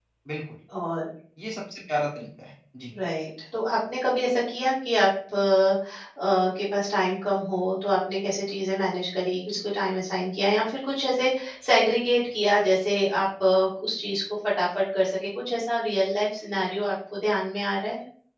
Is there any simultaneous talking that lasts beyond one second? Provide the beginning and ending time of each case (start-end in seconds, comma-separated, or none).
none